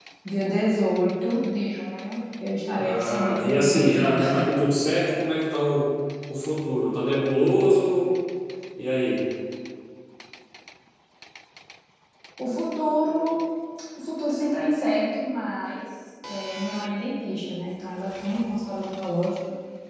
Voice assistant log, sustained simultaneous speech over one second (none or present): present